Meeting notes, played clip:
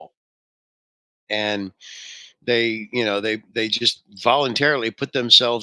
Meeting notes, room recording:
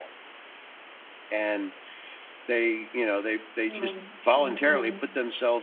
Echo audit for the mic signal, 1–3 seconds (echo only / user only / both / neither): echo only